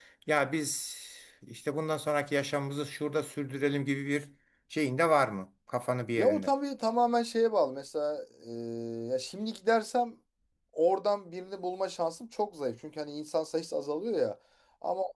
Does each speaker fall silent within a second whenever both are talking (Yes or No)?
Yes